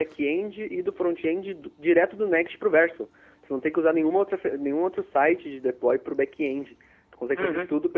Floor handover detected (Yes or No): Yes